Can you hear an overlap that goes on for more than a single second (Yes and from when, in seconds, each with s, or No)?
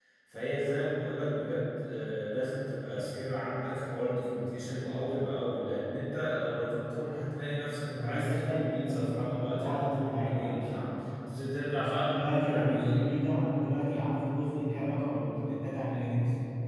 Yes, from 8.0 s